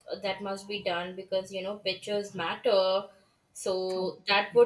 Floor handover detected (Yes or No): No